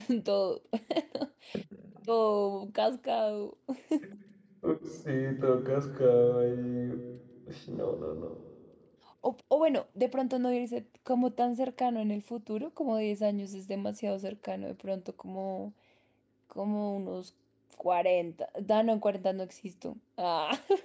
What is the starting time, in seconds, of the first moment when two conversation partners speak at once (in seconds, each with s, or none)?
none